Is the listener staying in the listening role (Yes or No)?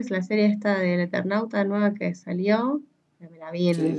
Yes